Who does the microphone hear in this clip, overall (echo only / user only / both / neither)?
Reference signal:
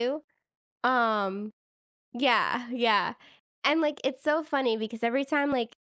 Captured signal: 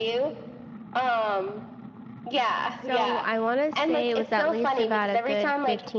both